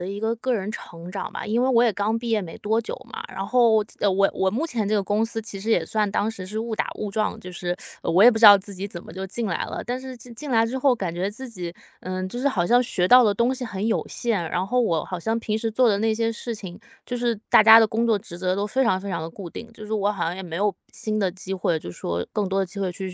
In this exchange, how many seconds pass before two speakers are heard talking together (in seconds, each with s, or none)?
none